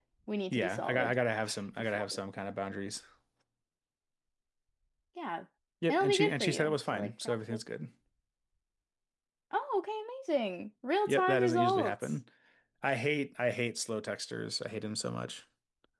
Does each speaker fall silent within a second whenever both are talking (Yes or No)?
No